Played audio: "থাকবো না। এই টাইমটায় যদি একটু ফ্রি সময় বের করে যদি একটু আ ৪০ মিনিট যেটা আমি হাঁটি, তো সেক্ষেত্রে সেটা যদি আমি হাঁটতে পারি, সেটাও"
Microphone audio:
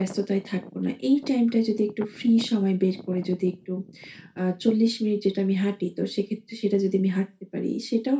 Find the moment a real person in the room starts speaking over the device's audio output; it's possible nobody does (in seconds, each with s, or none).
none